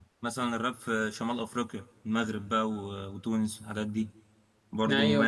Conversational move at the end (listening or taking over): taking over